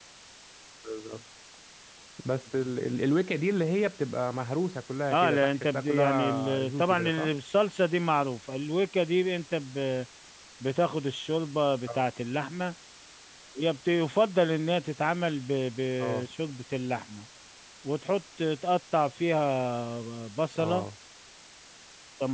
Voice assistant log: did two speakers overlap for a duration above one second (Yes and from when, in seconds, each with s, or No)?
Yes, from 5.1 s